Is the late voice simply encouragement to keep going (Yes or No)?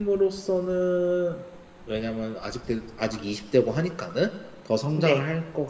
Yes